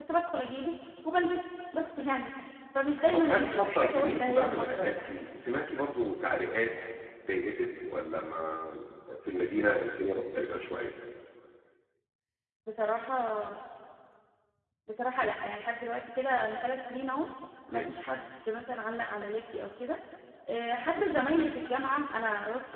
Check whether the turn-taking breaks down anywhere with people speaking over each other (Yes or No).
Yes